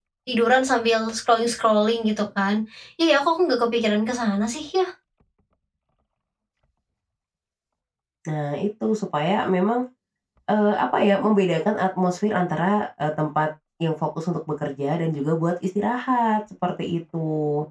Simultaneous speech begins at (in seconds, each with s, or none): none